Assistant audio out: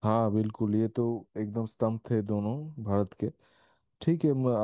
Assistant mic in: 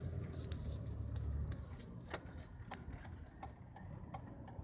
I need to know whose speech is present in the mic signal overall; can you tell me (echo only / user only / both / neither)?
neither